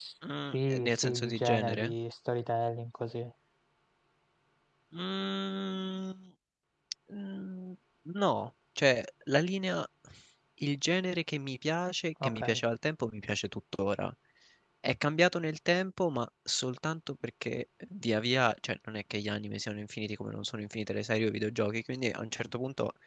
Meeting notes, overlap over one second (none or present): present